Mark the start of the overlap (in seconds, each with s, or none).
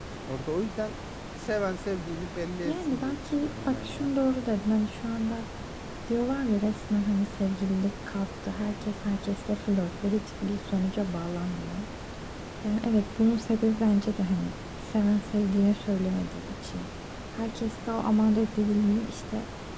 2.6 s